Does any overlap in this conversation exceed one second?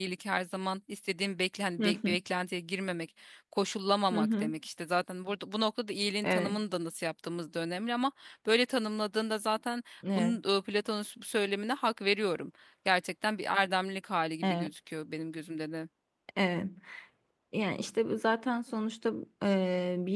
No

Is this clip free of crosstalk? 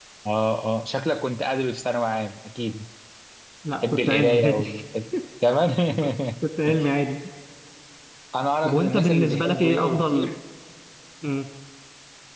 No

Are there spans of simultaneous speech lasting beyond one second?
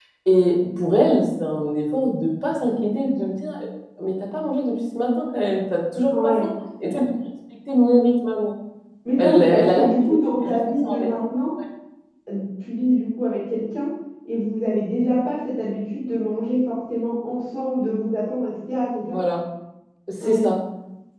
Yes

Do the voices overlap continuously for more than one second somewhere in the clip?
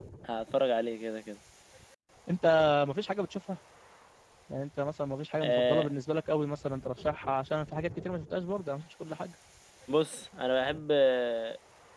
No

